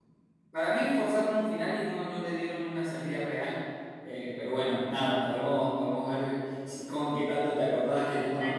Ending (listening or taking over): taking over